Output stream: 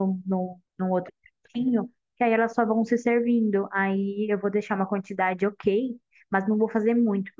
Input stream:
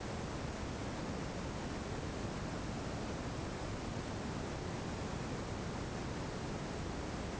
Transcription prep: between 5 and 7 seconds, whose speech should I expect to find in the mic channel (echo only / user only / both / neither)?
neither